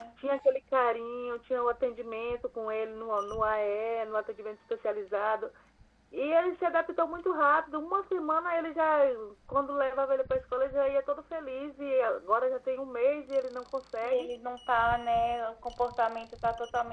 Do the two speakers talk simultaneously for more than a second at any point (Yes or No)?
No